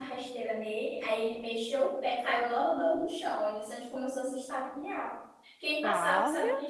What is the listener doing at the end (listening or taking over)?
listening